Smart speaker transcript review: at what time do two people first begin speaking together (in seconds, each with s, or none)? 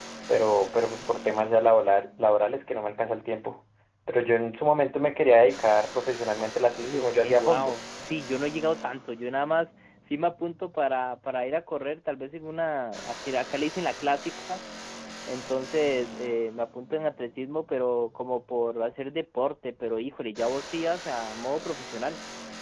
6.4 s